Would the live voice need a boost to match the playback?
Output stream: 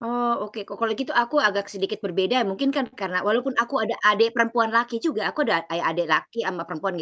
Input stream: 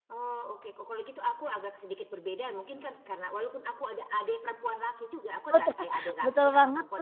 No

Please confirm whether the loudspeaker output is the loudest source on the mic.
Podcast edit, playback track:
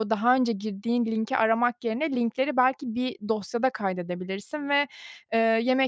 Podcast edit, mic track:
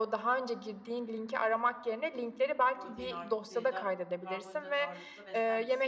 Yes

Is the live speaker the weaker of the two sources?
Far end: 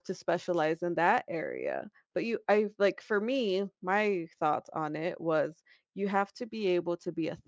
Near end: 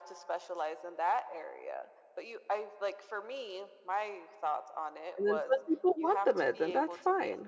No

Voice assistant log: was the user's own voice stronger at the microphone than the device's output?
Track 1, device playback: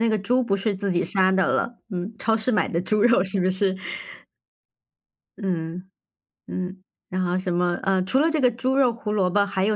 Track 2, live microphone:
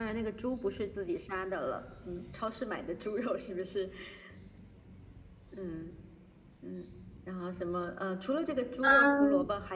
Yes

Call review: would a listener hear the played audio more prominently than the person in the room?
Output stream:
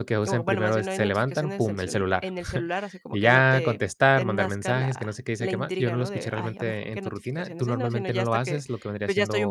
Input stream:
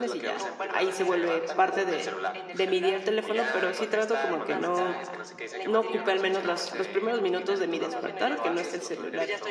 No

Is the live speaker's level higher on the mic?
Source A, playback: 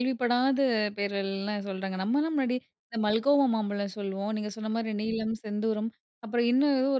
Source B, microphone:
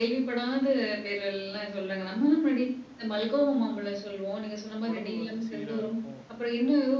No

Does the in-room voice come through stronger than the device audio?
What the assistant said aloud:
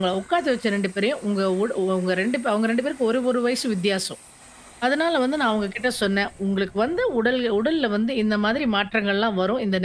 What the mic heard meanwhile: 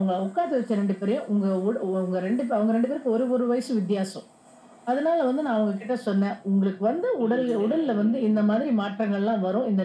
No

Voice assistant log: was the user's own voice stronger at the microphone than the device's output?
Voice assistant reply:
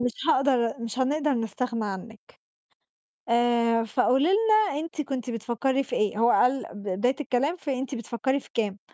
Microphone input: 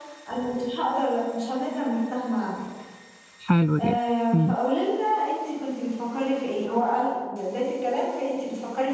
Yes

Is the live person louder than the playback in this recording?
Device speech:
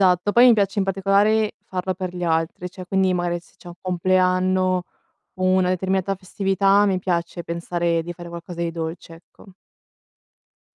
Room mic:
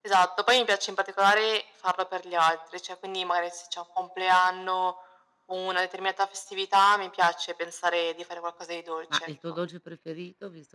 No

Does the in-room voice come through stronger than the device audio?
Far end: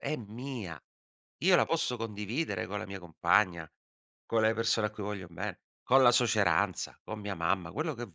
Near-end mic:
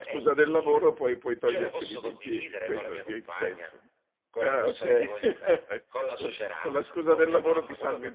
Yes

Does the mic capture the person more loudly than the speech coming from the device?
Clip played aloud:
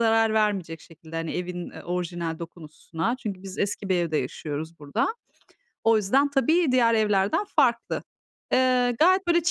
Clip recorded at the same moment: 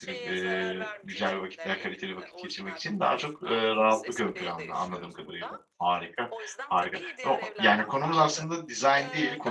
Yes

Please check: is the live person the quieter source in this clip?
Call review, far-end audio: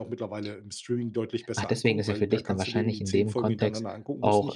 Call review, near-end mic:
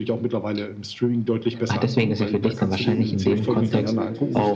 Yes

